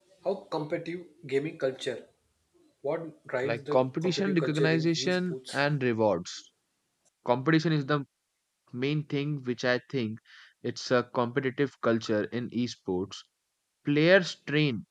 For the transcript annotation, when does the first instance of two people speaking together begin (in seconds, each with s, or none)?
3.4 s